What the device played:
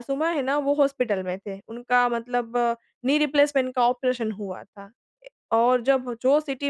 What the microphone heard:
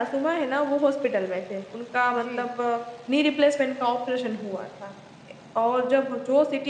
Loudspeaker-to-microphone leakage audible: Yes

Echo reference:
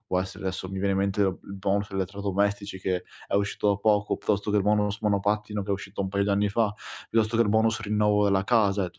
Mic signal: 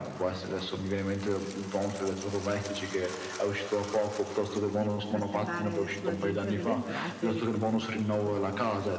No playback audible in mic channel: No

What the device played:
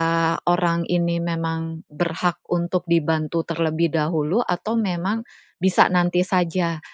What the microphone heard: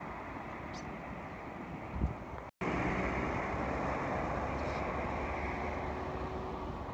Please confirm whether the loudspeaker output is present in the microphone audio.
No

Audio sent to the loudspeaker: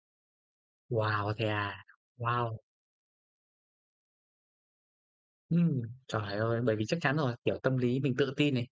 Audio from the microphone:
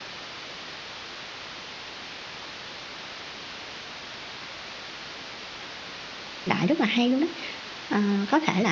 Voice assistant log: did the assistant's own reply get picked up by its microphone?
No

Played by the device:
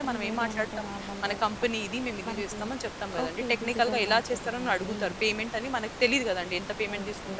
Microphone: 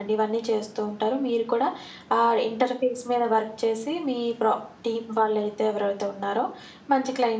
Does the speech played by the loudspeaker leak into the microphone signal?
No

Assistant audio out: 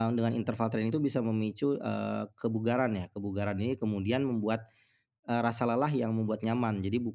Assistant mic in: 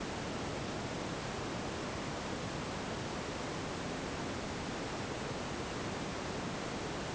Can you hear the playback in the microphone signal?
No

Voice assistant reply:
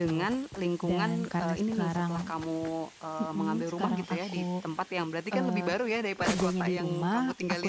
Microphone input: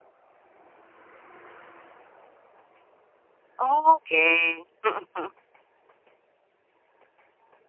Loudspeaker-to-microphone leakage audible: No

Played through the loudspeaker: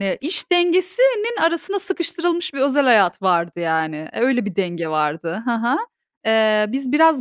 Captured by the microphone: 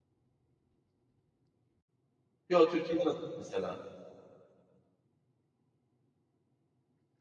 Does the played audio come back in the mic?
No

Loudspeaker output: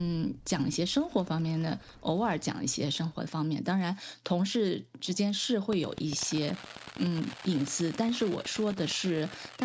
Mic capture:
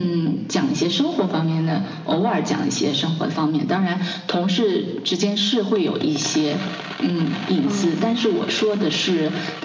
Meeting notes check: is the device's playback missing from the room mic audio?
No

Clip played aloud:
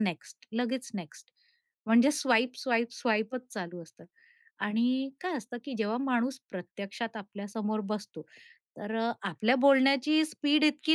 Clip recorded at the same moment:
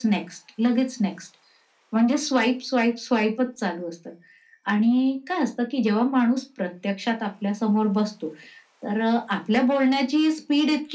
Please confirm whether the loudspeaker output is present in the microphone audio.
Yes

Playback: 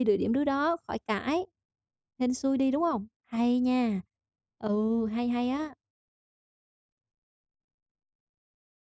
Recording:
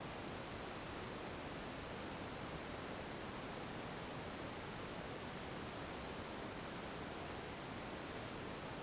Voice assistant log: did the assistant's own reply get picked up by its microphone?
No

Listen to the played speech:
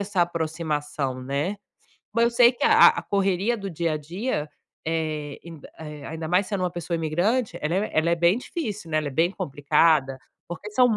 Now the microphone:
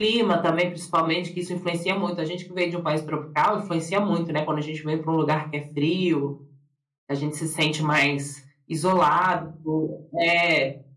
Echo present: No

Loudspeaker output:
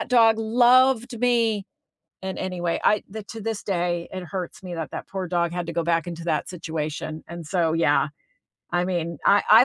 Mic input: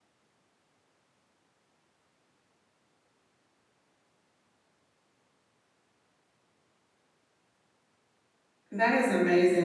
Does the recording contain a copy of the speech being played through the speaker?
No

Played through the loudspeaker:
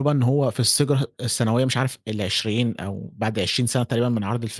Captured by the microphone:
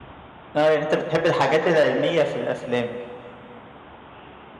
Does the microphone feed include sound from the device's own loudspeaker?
No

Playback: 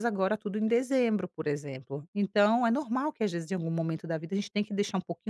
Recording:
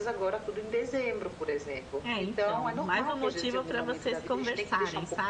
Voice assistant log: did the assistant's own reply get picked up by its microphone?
Yes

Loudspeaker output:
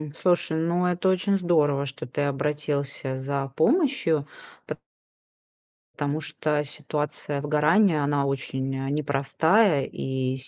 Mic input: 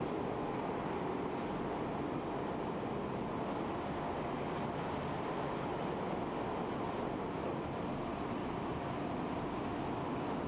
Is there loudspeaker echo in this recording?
No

